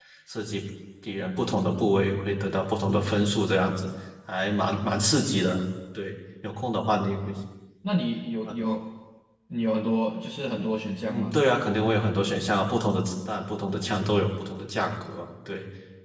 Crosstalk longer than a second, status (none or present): none